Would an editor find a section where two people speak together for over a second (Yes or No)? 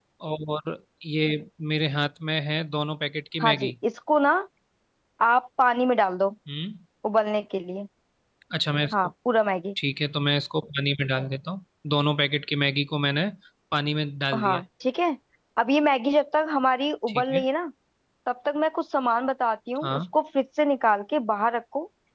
No